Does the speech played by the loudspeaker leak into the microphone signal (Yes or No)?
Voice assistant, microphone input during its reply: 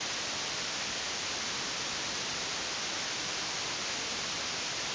No